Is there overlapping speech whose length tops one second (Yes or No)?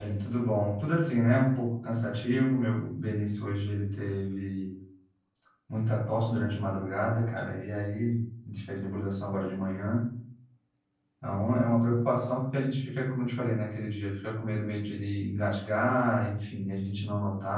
No